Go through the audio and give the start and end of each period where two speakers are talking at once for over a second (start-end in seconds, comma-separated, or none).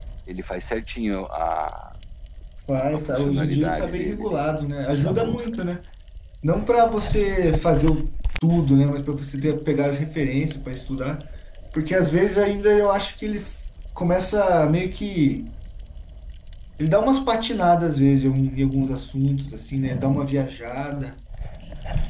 2.8-4.4